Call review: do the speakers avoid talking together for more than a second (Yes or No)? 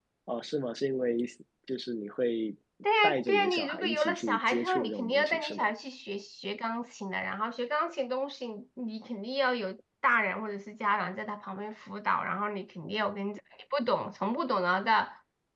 No